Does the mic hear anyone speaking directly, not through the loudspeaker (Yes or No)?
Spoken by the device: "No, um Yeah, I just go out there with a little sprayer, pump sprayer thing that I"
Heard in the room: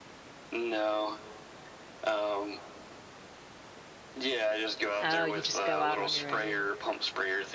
Yes